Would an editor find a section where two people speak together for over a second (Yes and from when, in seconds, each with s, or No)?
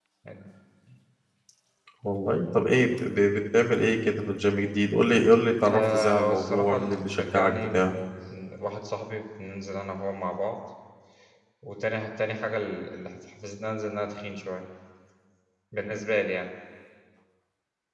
Yes, from 5.7 s